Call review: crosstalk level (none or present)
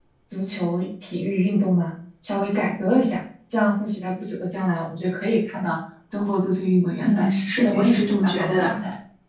present